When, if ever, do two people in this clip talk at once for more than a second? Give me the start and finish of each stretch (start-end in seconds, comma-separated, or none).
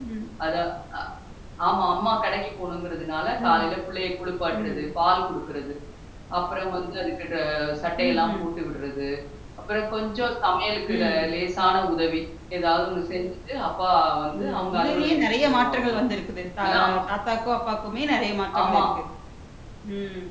14.4-16.0